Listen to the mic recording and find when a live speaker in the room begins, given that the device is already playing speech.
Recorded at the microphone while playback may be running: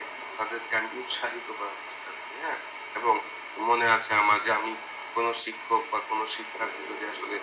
none

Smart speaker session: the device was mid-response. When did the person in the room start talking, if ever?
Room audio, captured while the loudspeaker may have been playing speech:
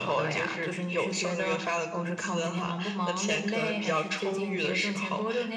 none

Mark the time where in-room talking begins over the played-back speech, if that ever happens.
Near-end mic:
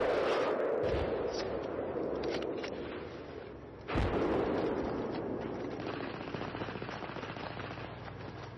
none

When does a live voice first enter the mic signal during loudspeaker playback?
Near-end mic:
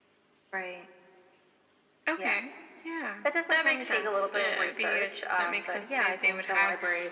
none

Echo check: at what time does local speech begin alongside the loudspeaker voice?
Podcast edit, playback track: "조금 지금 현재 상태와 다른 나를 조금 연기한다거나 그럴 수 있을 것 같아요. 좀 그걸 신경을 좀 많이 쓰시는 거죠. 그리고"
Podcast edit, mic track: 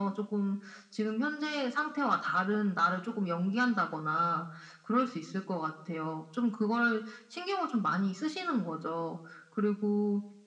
none

